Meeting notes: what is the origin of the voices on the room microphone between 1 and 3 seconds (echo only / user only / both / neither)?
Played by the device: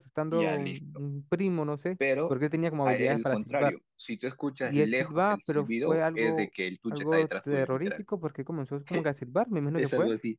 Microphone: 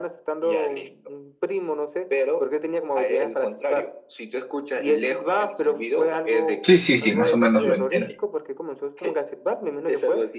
echo only